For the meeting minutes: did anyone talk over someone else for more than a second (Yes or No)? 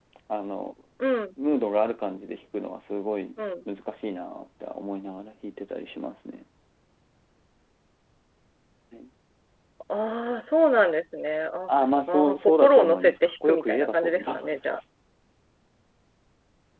Yes